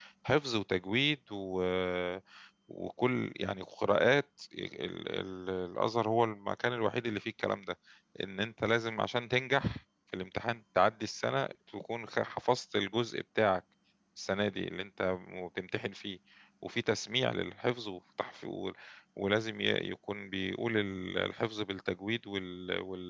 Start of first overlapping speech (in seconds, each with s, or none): none